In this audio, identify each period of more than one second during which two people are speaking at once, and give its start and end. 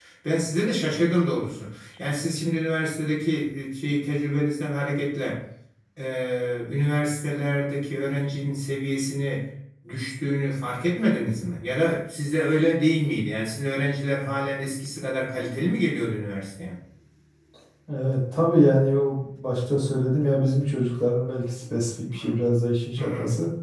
none

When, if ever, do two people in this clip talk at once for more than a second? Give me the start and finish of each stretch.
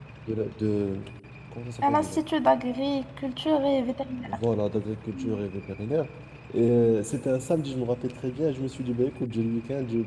none

